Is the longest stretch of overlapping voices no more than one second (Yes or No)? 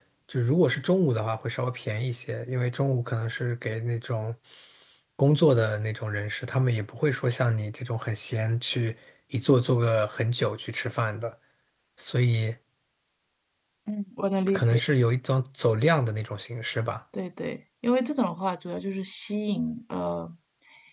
Yes